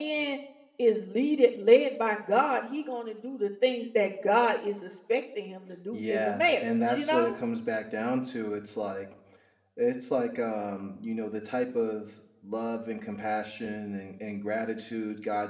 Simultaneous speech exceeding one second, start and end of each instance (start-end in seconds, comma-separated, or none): 5.9-7.4